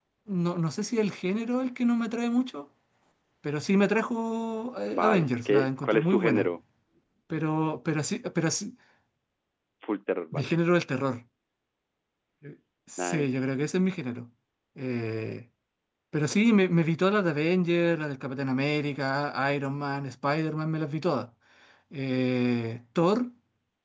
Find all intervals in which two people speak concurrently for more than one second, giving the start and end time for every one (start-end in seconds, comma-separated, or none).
4.9-6.5